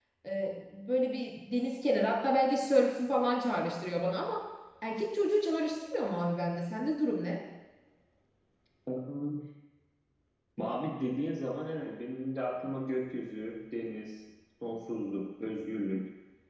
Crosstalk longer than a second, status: none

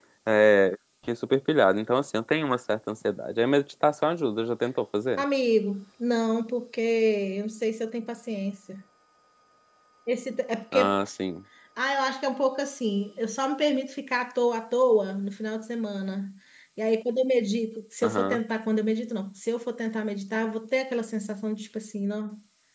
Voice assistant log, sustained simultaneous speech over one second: none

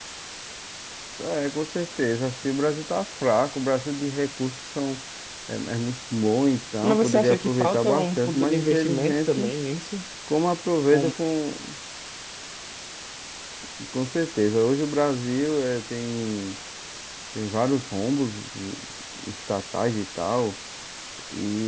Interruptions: present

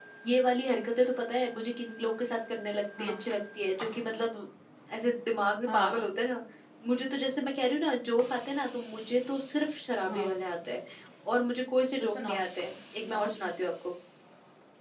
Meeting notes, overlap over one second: none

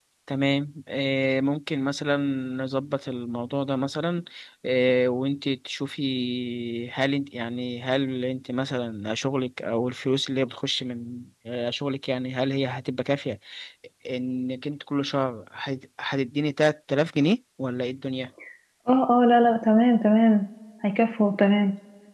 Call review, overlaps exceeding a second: none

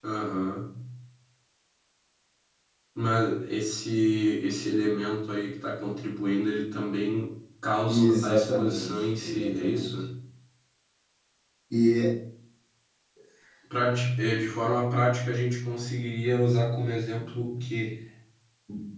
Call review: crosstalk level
present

